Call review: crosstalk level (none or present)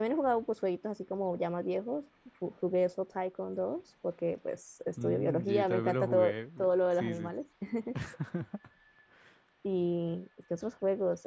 present